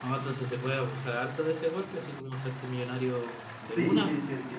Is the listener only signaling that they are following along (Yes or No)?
No